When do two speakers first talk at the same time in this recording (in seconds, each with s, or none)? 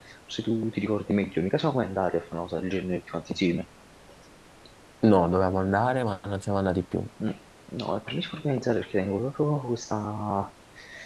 none